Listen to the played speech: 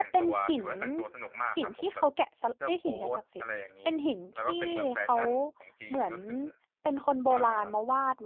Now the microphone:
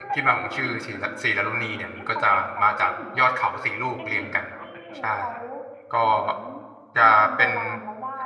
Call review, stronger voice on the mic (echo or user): user